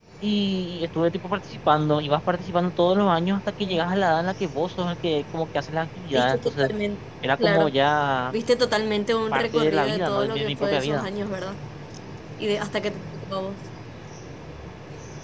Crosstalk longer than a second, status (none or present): present